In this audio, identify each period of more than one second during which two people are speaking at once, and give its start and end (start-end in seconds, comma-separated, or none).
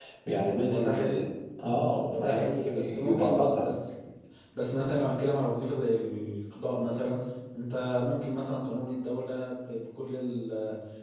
2.1-3.6